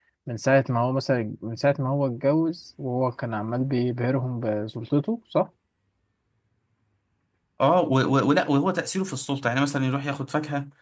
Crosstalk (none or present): none